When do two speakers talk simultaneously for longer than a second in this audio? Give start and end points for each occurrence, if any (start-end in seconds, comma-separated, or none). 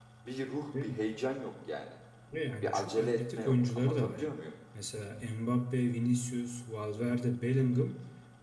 2.6-4.2